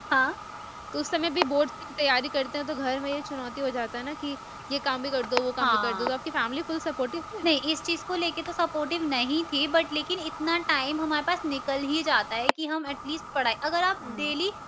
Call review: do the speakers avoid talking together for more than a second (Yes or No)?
Yes